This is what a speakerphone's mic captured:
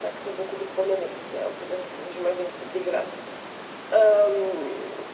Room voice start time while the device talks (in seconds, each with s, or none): none